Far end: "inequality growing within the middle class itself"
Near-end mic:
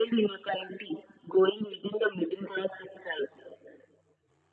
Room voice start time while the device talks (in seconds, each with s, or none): none